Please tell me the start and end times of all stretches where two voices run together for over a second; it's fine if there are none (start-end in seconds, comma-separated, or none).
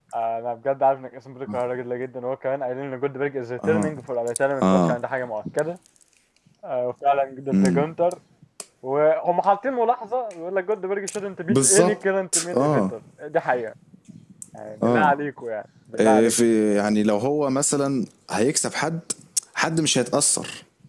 none